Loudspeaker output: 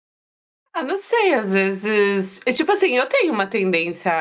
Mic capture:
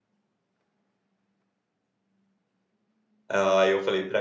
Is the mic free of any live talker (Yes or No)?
No